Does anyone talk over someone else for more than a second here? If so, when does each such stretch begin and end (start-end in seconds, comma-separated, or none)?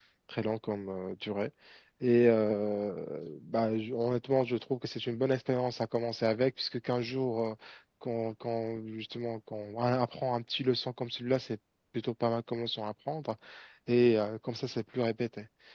none